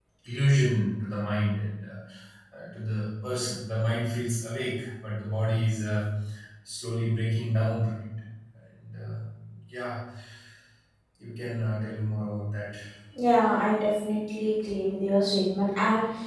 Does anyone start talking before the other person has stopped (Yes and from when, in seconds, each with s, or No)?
No